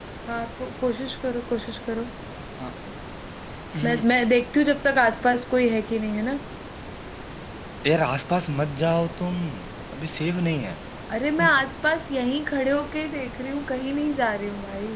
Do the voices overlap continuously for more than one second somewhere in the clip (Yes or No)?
No